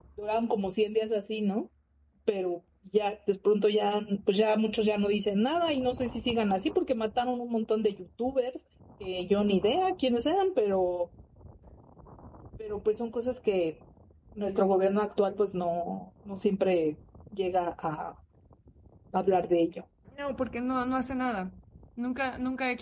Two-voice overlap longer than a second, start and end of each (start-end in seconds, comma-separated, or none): none